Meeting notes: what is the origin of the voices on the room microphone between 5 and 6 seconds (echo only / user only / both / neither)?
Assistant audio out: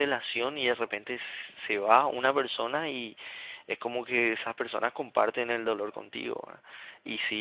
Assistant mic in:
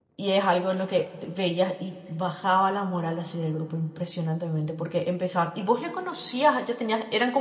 user only